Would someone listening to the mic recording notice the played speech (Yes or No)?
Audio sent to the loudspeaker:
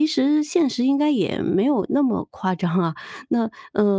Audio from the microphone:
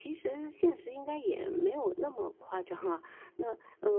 Yes